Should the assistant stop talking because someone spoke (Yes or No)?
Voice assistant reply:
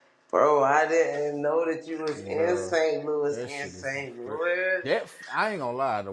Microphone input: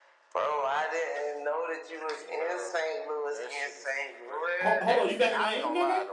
Yes